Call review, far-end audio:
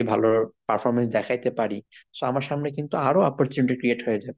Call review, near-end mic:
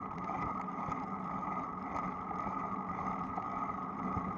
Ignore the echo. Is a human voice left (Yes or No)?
No